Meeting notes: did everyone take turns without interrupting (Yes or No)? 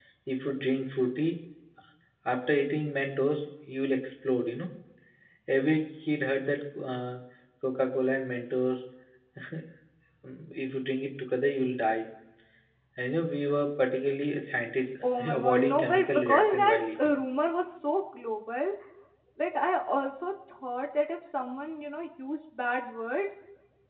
No